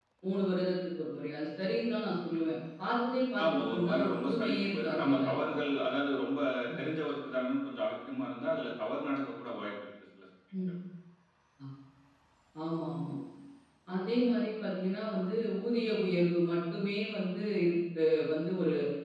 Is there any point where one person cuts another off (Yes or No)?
Yes